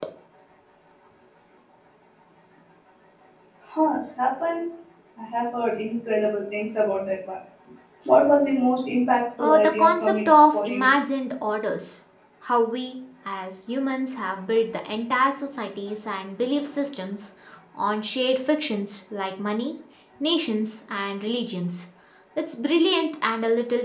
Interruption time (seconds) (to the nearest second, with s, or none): 9 s